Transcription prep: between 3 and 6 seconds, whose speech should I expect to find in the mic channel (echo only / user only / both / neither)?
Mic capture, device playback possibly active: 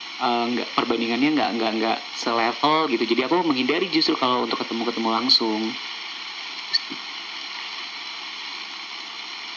echo only